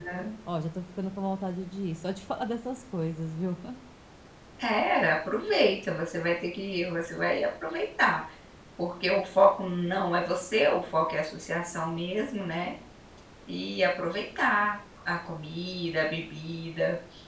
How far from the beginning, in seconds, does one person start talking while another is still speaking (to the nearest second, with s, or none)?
none